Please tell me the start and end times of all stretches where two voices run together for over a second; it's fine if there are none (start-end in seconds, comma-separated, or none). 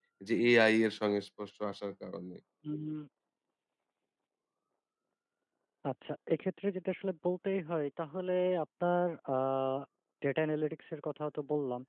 none